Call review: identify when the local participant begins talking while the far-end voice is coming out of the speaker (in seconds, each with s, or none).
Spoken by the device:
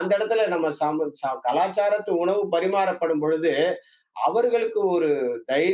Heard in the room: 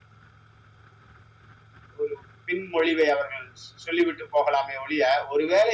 2.0 s